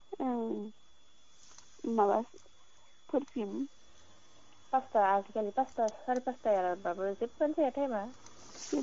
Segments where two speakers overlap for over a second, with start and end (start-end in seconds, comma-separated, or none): none